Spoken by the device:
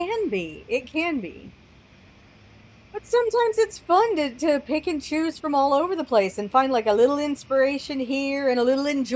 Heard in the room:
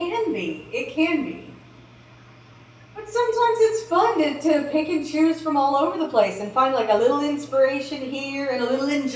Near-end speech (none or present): none